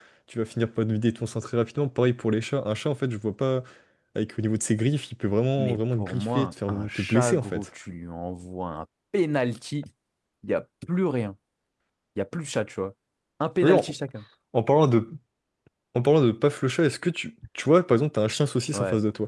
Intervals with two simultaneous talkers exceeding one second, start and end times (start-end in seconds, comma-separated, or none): 5.6-7.7